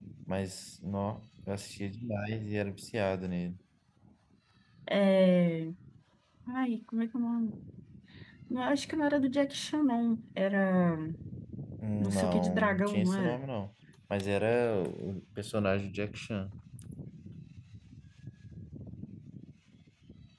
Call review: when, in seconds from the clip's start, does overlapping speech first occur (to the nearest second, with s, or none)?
12 s